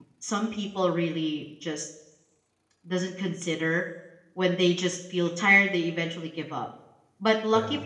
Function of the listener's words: listening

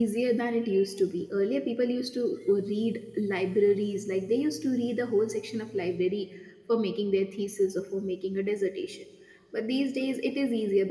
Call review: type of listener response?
listening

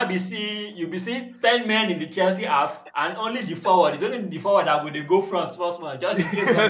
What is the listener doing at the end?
taking over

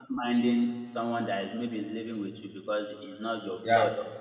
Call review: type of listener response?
listening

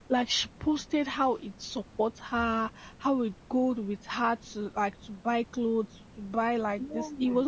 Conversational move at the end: listening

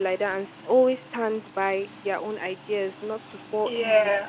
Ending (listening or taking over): listening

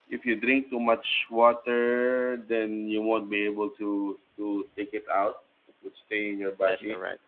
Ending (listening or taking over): listening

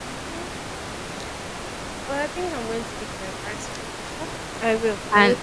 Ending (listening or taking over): taking over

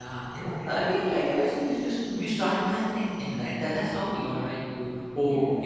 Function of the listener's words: listening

